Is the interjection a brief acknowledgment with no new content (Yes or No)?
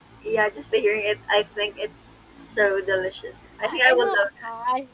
No